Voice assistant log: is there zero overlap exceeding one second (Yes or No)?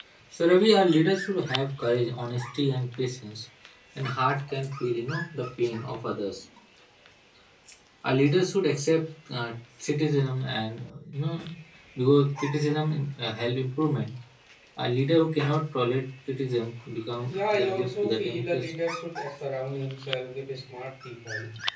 No